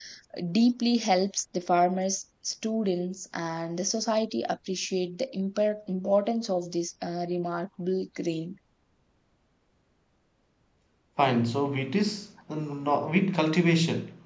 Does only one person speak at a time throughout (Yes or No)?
Yes